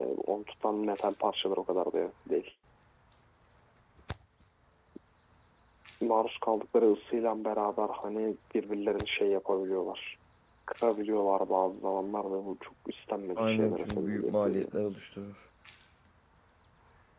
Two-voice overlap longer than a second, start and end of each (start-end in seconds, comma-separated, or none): 13.4-14.7